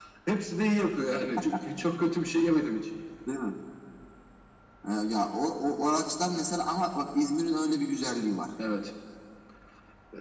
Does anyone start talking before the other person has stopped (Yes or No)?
No